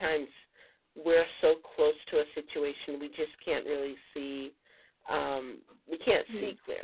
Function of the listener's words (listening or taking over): listening